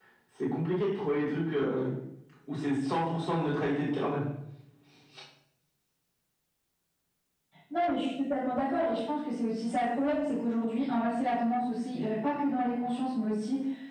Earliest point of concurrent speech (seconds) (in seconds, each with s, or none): none